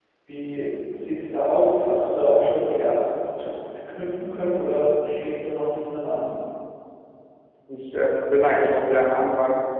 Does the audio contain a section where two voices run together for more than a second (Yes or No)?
No